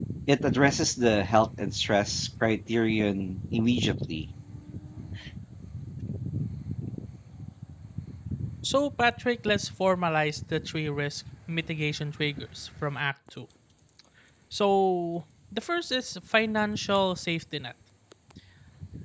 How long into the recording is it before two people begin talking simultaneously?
none

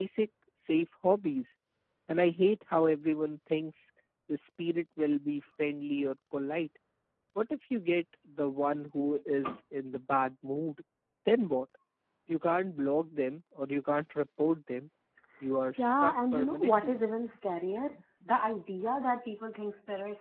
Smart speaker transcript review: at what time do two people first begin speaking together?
15.7 s

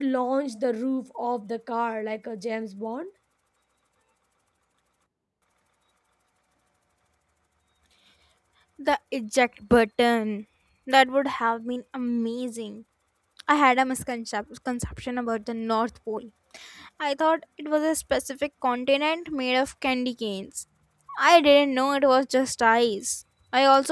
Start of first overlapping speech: none

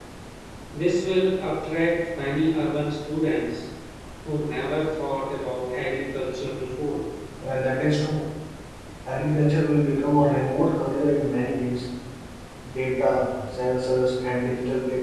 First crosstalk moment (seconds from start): none

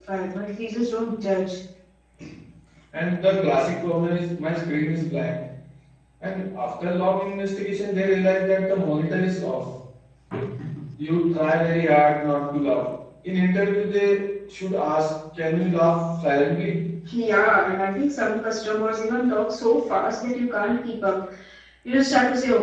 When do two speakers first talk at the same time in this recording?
none

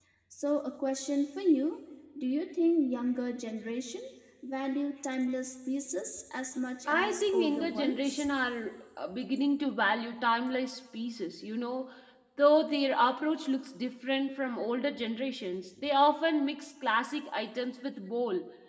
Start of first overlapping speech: 6.9 s

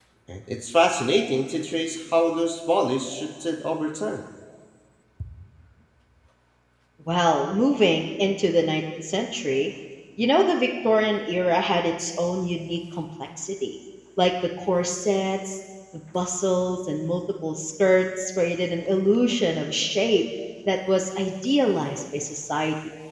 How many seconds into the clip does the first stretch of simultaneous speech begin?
none

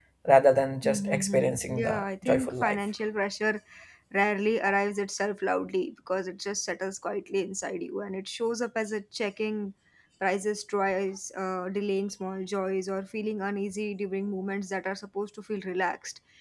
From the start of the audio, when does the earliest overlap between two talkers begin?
0.8 s

